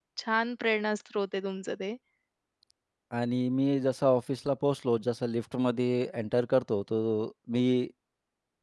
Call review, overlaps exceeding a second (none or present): none